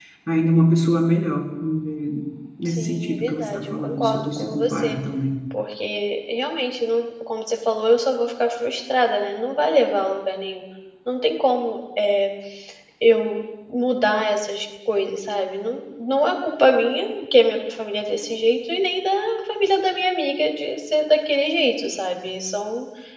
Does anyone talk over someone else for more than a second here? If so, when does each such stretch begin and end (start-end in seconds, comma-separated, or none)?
2.6-5.0